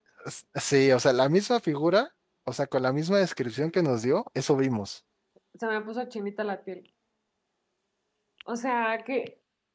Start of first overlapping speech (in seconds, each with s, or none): none